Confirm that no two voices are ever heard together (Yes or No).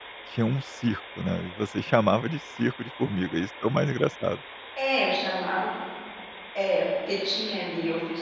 Yes